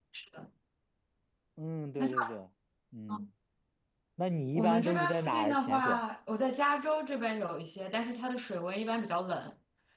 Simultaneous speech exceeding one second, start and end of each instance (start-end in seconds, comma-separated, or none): 4.5-6.0